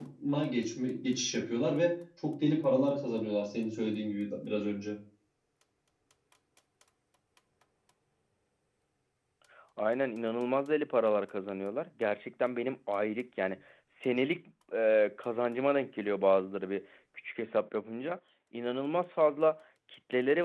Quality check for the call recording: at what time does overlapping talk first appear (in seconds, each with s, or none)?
none